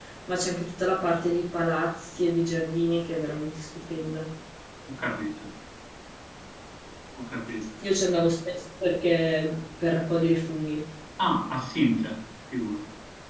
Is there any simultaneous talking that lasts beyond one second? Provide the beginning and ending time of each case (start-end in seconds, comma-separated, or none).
none